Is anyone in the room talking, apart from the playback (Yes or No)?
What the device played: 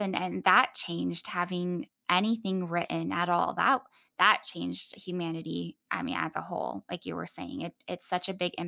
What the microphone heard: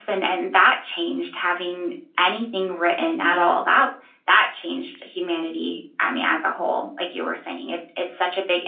No